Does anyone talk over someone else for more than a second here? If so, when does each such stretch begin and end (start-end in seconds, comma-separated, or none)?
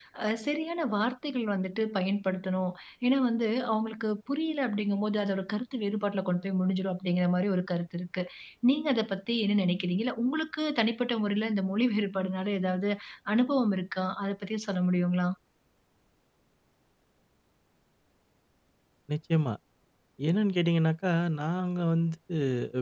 none